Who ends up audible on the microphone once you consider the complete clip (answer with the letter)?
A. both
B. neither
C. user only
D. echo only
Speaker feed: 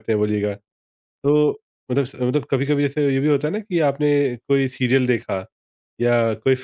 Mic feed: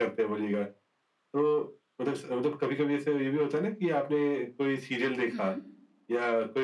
A